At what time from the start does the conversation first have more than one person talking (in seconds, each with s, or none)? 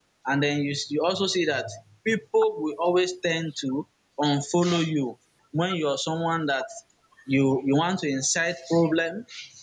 none